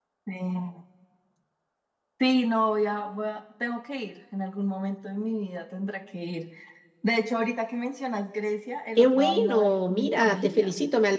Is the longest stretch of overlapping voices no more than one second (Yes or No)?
No